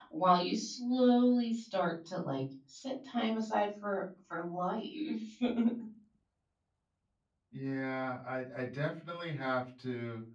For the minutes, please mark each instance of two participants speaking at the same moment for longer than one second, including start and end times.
none

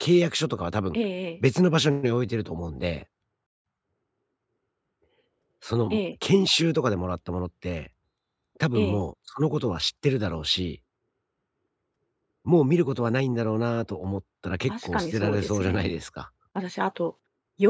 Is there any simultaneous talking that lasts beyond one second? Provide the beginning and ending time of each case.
14.7-16.0

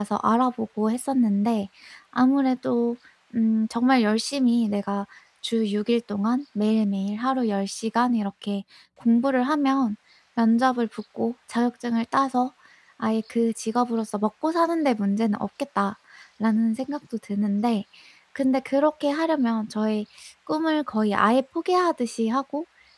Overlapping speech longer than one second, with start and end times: none

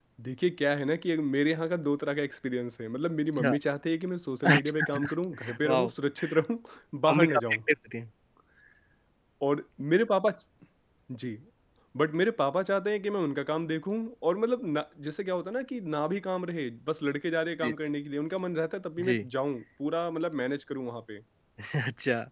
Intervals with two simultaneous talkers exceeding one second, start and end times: 4.4-5.9

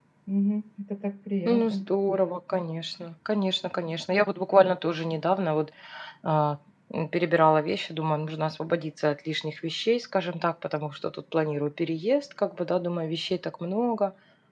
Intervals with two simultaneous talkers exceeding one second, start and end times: none

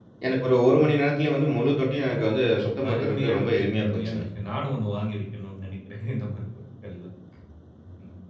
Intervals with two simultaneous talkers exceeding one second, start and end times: 2.9-4.2

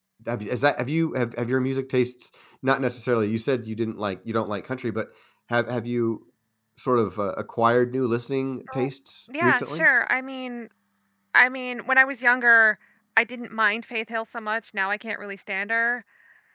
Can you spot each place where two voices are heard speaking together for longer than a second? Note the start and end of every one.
none

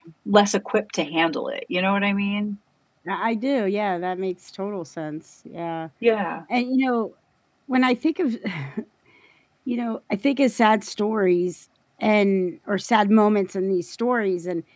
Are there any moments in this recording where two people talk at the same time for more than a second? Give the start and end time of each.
none

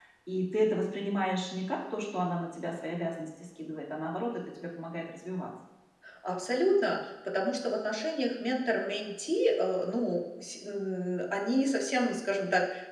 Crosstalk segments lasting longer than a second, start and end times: none

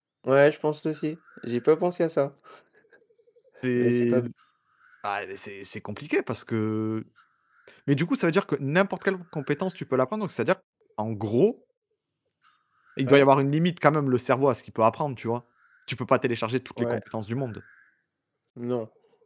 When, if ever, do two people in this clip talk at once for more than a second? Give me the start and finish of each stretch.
none

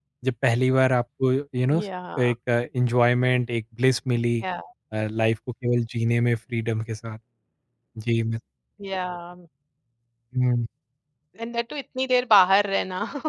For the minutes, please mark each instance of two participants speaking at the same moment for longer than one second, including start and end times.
none

